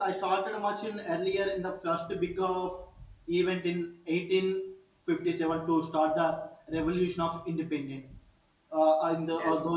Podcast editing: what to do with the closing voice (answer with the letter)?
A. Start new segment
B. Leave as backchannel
B